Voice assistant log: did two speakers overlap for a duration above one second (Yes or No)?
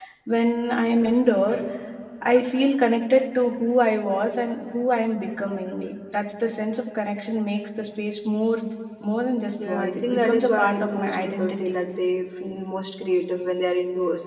Yes